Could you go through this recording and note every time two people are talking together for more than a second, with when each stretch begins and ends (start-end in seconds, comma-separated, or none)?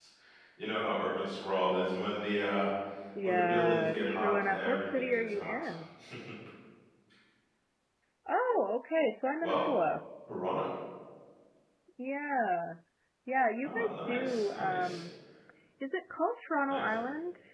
3.2-5.7, 13.6-15.0